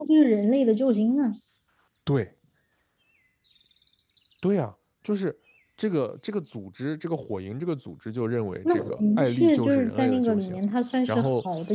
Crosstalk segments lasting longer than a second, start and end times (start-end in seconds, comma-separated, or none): 8.7-10.6